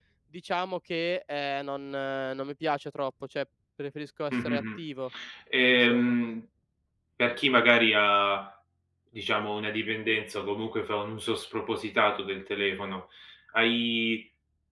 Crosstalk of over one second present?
No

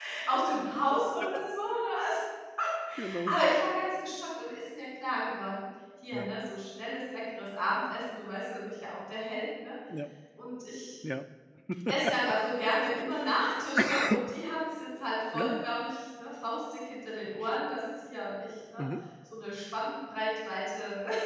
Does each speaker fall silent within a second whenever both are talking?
Yes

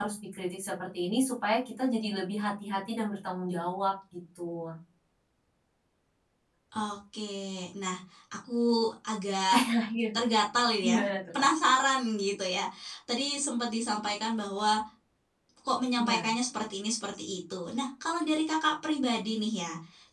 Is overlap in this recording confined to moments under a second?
Yes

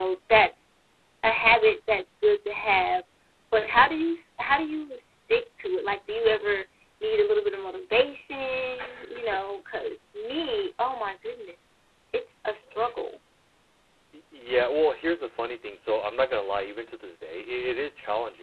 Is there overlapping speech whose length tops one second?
No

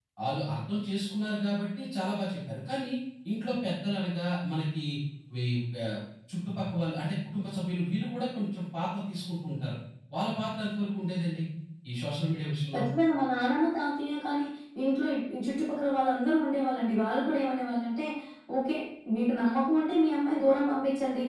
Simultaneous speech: No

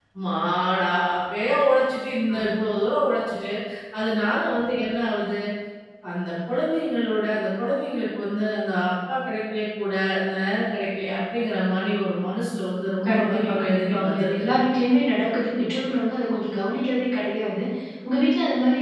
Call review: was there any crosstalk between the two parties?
Yes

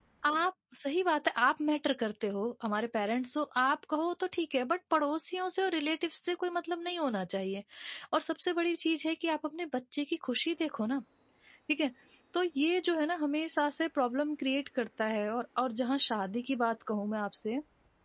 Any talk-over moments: No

